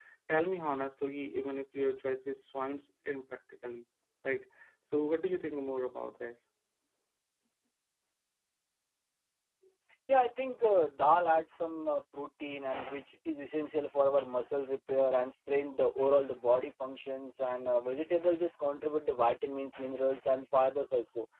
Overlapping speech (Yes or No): No